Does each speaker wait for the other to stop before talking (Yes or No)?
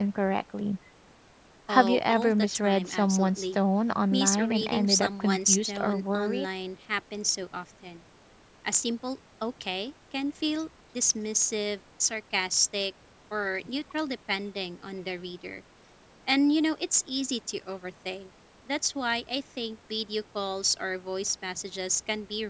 No